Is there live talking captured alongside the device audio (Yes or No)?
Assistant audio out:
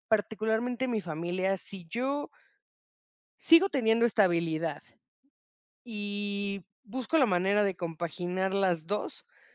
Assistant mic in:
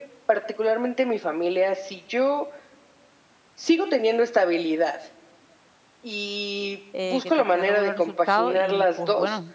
Yes